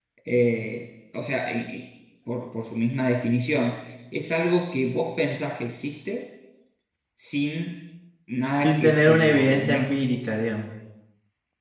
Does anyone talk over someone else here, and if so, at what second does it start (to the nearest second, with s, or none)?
9 s